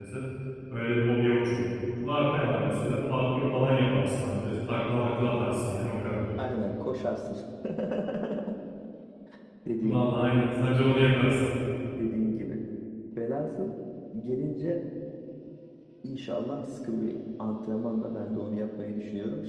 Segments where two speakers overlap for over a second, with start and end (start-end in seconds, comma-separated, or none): none